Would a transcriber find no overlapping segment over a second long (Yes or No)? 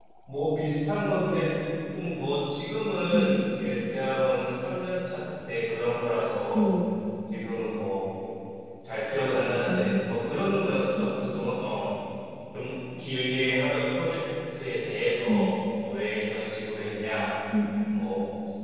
Yes